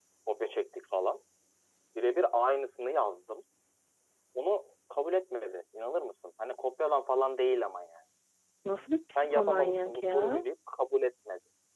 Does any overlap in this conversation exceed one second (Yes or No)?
Yes